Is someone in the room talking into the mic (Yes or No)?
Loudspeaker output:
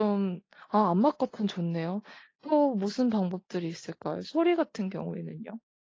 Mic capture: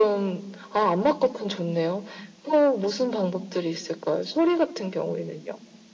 No